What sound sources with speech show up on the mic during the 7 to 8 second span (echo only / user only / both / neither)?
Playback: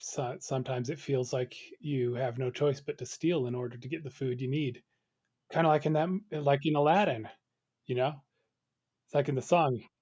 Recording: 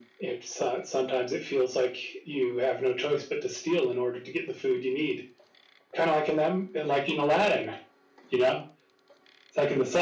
echo only